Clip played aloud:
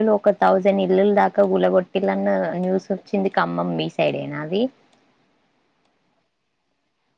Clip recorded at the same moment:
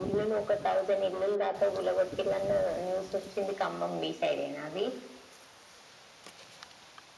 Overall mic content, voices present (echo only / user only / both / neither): echo only